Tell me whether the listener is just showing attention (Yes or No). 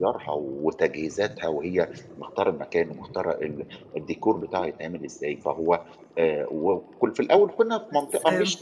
Yes